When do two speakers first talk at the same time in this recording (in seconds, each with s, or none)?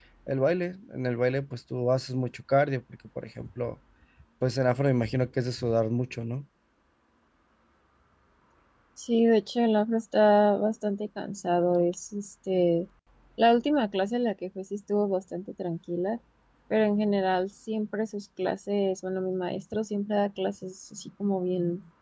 none